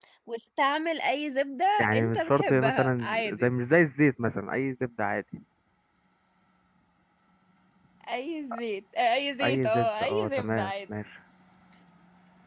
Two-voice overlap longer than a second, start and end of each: 1.8-3.5, 9.4-10.7

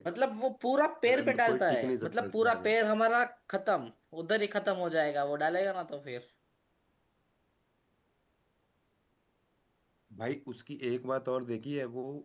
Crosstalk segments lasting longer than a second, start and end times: 1.1-2.7

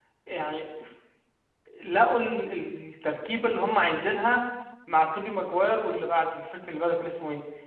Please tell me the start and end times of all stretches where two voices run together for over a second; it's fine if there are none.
none

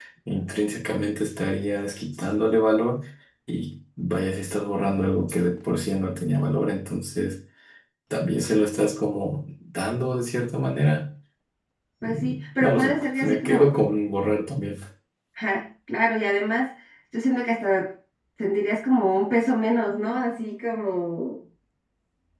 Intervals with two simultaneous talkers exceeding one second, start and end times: 12.0-13.6

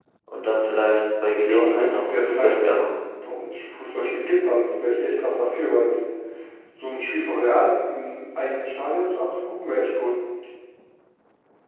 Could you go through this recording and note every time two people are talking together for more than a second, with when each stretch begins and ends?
1.3-2.5

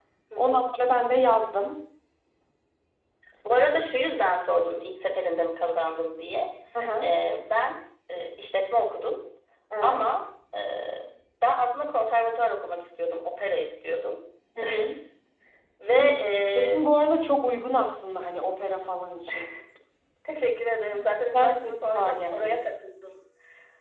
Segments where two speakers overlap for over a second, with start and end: 21.3-22.6

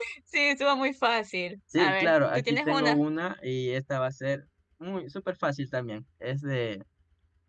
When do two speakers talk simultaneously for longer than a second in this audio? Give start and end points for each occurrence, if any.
1.8-3.0

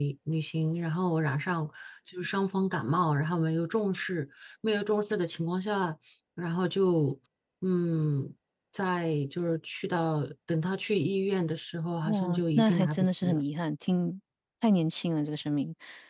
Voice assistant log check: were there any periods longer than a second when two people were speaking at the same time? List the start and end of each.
12.0-13.4

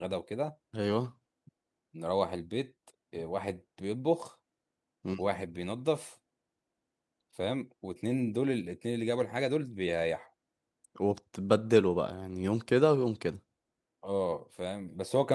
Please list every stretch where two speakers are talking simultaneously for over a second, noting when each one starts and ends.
none

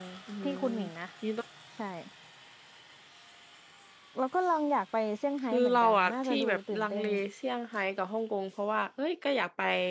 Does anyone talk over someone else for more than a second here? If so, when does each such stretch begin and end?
5.5-7.0

